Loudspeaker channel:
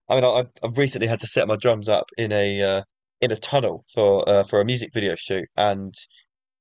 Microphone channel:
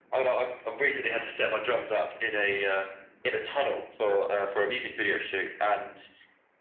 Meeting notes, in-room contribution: none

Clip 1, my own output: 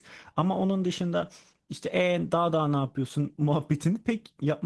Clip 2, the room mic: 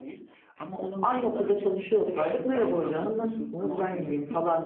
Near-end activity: present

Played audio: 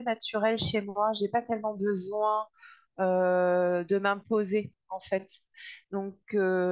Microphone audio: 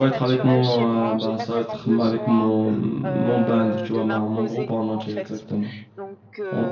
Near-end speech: present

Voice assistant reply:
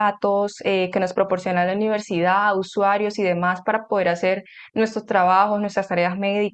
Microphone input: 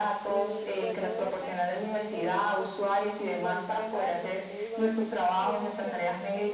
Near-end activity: present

